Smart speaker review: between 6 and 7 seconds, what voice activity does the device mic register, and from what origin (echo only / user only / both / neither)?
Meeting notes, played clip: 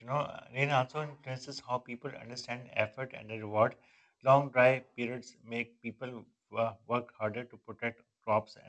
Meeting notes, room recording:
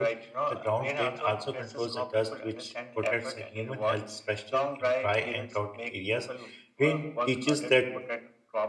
both